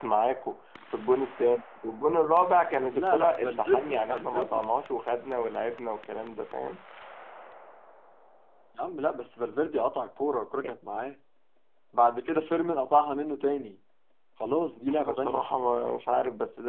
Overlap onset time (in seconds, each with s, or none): 2.9 s